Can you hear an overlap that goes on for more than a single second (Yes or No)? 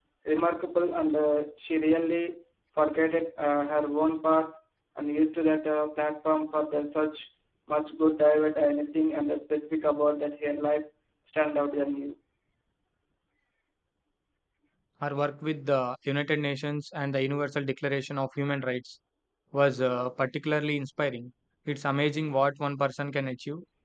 No